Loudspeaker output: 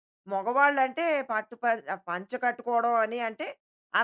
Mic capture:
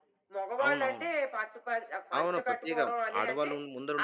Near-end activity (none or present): present